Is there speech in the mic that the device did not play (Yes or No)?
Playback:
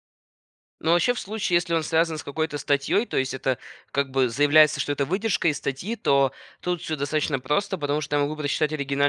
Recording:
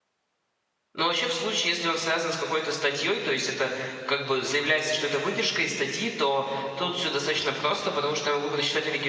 No